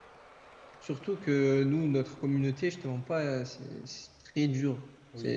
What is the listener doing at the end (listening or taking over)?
taking over